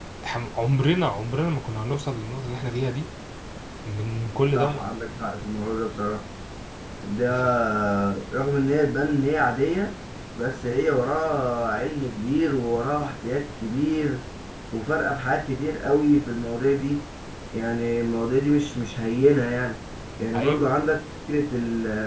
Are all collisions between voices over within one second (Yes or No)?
Yes